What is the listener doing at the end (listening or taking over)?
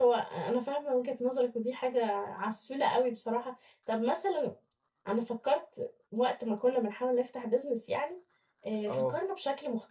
listening